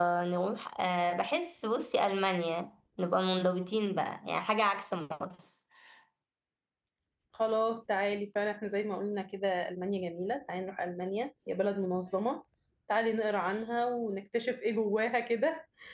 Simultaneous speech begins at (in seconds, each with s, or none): none